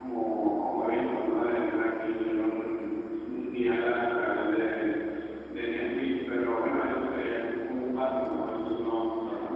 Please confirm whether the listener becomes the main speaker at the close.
No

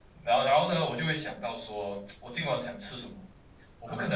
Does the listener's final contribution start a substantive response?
No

